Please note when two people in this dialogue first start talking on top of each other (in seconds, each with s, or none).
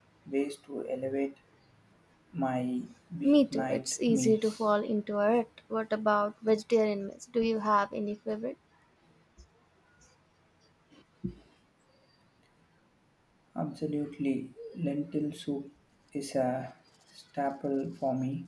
3.2 s